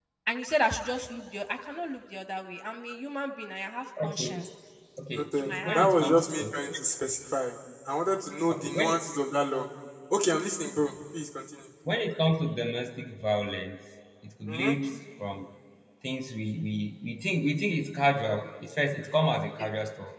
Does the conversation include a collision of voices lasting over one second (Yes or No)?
Yes